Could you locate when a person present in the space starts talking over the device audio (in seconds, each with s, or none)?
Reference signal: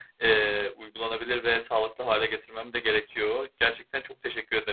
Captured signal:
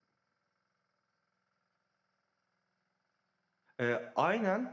3.8 s